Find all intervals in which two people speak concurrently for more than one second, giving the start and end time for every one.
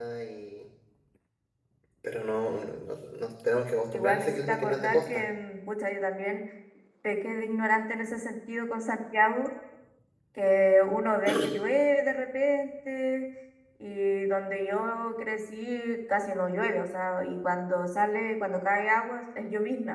3.9-5.2

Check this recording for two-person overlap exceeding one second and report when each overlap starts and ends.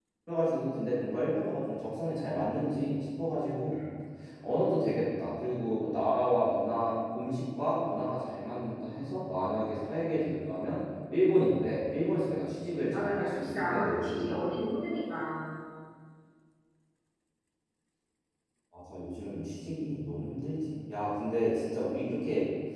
12.9-14.5

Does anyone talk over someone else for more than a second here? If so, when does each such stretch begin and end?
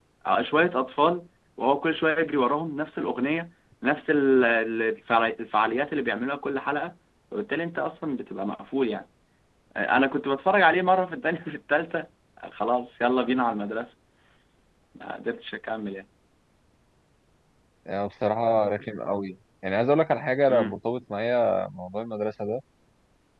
none

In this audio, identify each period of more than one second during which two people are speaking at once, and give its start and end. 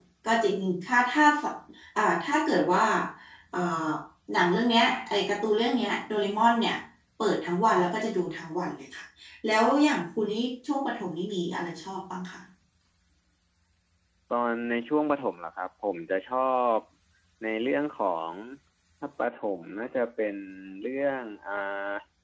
none

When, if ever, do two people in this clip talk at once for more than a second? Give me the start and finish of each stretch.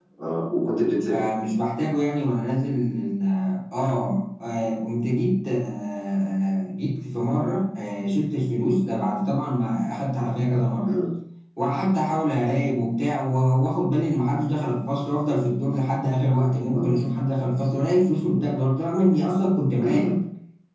none

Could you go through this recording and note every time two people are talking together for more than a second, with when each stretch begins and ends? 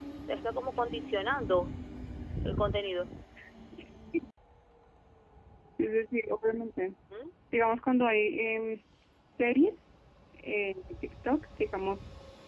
none

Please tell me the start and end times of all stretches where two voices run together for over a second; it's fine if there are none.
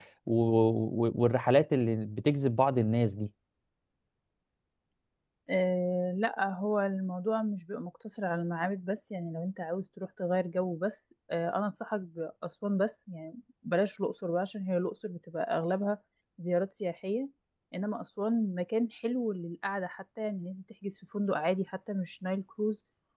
none

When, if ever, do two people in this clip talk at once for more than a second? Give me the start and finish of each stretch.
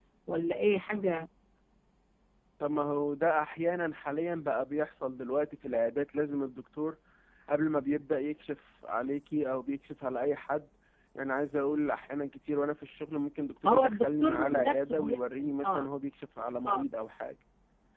13.7-15.9

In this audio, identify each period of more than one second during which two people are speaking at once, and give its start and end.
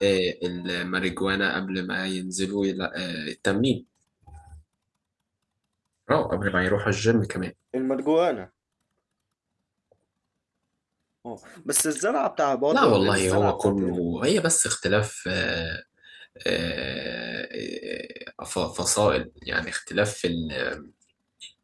12.7-14.0

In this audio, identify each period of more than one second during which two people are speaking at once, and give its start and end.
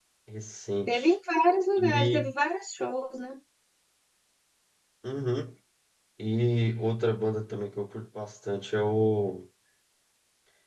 none

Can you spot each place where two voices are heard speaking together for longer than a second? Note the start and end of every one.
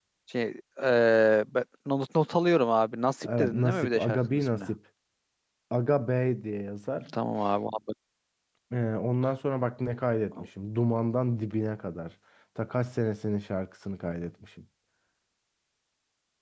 3.2-4.7

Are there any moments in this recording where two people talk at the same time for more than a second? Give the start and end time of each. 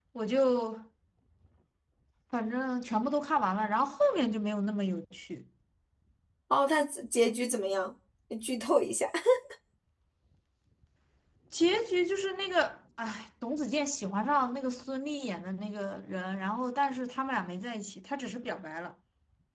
none

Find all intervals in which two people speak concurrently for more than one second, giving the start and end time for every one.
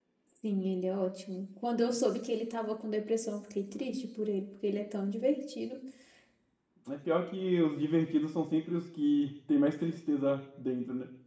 none

